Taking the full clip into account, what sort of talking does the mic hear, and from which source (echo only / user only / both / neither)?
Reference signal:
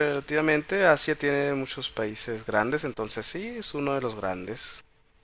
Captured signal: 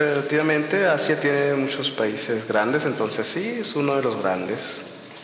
echo only